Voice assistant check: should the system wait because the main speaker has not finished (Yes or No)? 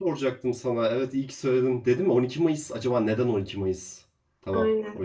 No